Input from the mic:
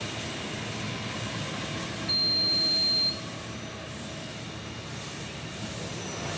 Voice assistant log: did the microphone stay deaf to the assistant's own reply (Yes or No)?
Yes